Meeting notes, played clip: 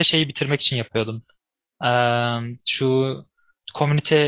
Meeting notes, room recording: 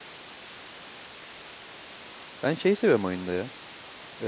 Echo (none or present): none